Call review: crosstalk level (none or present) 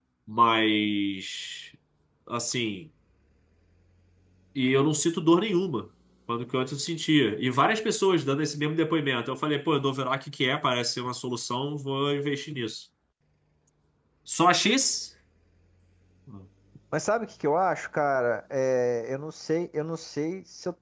none